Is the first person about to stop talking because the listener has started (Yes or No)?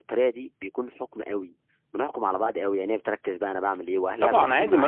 Yes